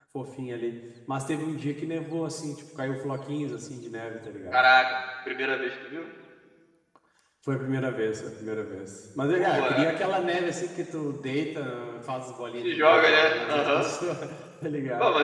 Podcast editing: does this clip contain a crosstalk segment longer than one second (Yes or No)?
Yes